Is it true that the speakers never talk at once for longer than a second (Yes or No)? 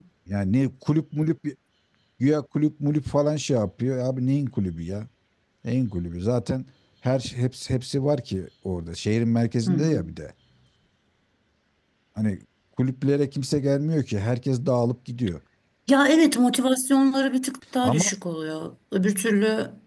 Yes